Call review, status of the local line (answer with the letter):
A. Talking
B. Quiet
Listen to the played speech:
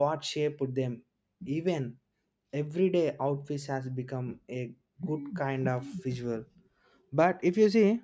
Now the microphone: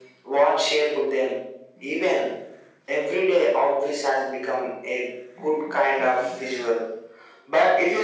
B